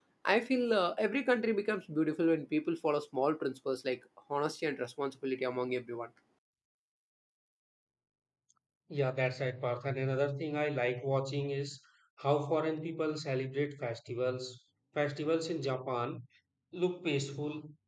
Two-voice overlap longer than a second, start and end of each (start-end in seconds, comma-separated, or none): none